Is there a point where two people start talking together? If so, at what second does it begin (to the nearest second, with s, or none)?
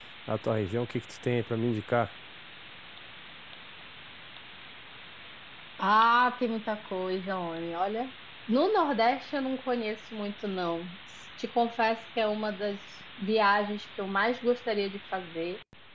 none